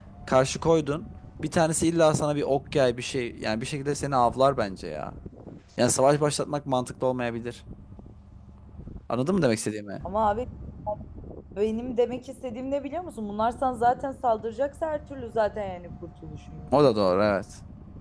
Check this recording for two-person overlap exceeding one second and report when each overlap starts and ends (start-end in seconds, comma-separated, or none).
none